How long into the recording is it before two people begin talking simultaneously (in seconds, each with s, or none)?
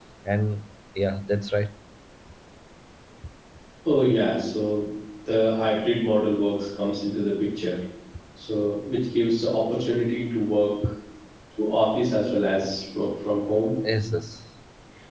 none